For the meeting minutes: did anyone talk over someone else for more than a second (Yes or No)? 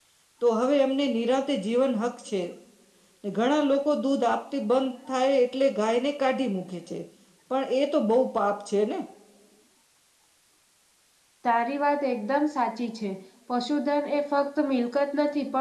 No